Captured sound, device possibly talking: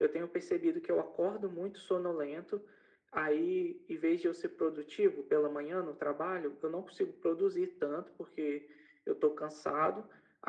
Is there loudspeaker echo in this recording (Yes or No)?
Yes